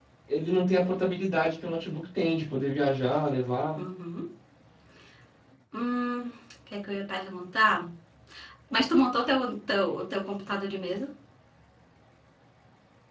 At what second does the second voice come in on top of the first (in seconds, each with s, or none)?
none